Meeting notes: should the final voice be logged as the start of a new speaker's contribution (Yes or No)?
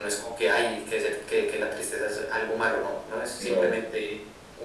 No